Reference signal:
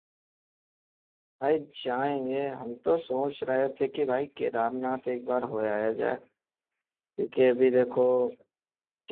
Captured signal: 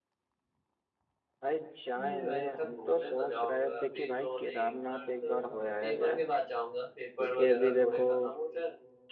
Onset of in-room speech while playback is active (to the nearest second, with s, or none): 2 s